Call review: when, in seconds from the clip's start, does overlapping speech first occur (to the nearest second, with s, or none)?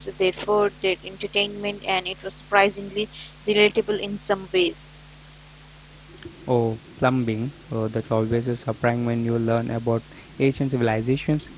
none